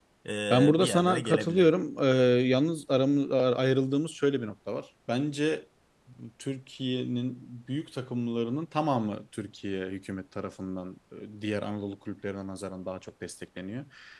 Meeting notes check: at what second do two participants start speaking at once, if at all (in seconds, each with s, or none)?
0.5 s